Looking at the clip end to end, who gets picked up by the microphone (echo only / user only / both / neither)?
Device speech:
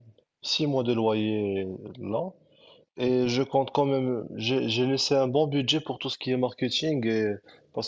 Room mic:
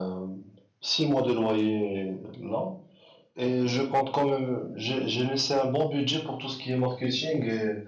echo only